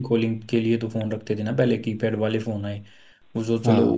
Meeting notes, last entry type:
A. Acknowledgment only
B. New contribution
A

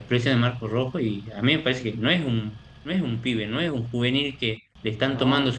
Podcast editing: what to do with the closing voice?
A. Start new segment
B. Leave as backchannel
B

